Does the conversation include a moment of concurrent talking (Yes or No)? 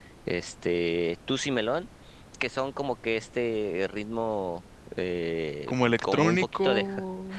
Yes